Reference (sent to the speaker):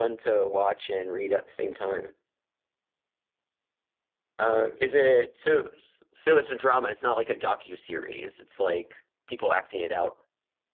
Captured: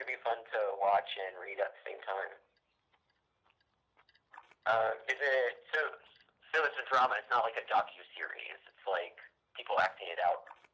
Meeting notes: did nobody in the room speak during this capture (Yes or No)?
Yes